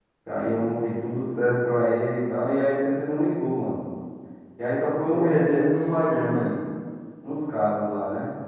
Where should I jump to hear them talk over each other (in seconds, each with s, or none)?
5.1 s